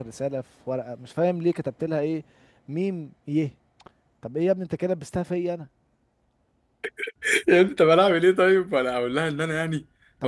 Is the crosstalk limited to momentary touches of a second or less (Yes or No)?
Yes